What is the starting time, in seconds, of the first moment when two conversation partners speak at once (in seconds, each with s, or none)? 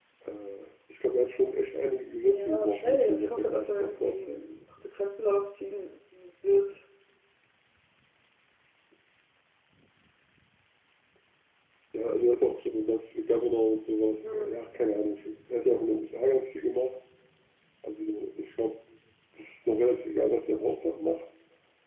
2.3 s